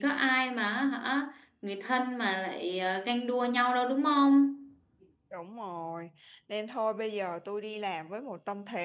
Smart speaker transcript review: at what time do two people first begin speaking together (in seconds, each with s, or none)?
none